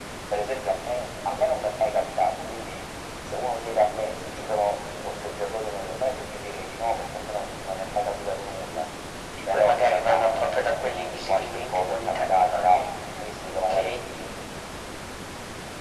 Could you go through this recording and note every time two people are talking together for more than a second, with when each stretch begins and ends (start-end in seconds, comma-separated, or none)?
9.5-12.8